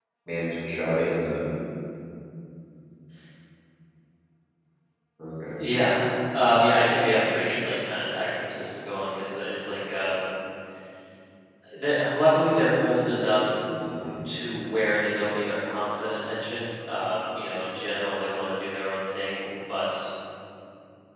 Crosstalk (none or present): none